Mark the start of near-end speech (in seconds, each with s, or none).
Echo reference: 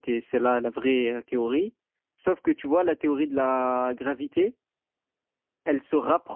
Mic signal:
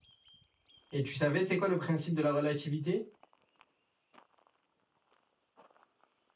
0.9 s